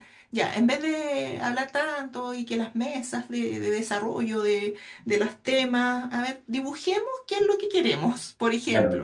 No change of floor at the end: No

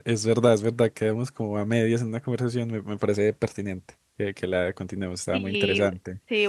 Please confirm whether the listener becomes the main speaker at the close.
Yes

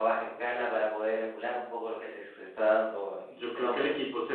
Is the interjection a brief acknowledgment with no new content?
No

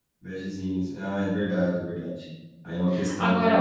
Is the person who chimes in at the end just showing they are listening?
No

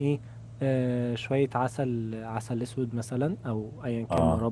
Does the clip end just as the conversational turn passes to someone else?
No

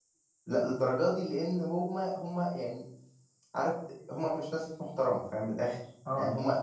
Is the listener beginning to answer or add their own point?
No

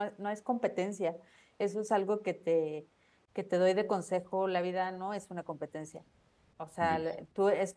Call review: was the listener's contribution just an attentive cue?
Yes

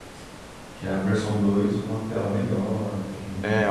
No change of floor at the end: No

